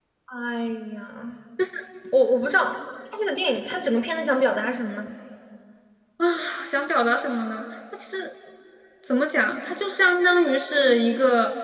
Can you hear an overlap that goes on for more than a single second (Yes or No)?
No